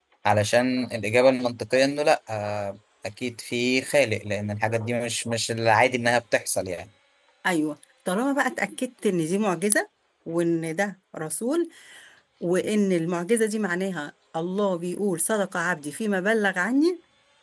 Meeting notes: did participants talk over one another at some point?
No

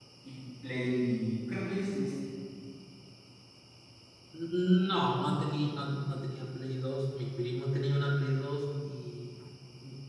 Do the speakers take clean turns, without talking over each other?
Yes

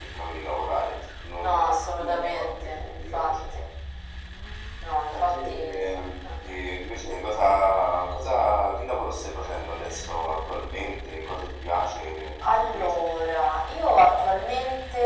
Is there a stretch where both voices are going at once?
Yes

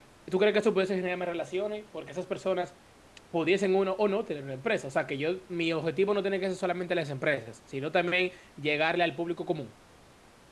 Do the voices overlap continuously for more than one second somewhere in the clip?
No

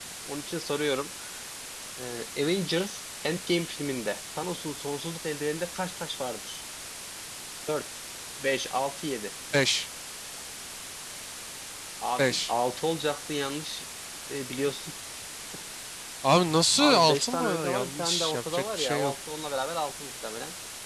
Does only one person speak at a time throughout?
No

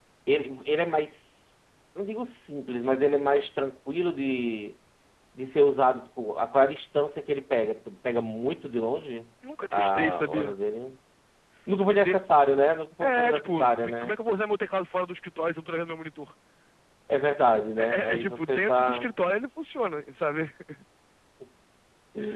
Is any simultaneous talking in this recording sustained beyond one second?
Yes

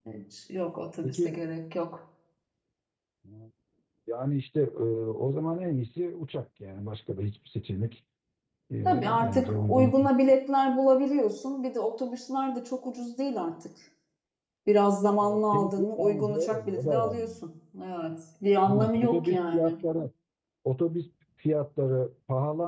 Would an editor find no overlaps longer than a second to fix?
No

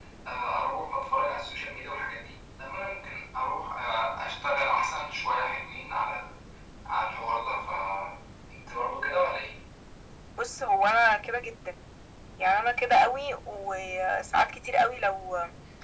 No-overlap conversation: Yes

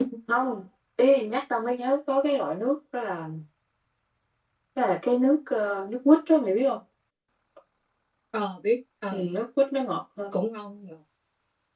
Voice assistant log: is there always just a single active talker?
Yes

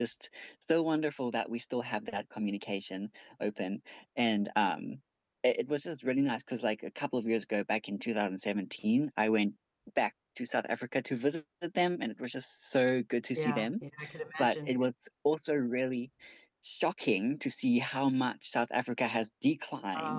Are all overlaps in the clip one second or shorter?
Yes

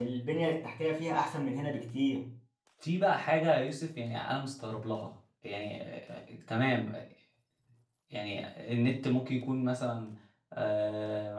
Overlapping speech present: No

